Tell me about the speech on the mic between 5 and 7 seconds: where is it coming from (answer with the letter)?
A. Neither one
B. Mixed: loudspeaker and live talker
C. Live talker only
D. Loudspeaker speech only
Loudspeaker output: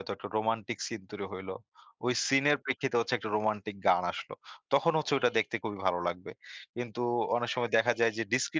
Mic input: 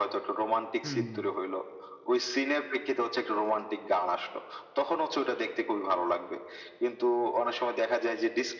D